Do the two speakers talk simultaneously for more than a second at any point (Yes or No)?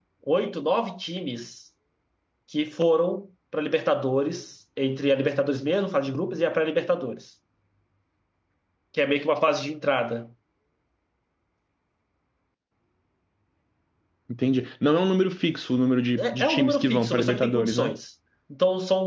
Yes